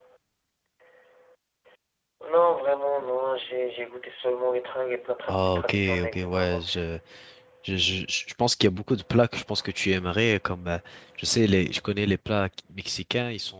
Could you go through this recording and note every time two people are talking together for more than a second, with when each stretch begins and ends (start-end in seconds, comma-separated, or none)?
5.3-6.6